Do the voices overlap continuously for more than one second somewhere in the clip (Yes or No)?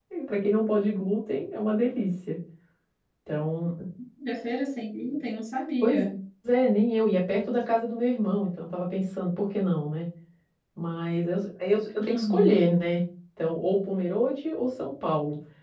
No